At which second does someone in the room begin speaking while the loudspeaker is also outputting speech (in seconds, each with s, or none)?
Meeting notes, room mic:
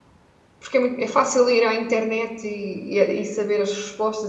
0.6 s